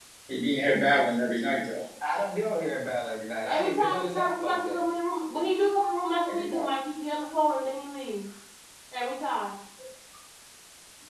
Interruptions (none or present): present